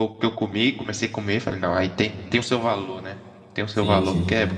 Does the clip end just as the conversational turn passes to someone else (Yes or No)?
Yes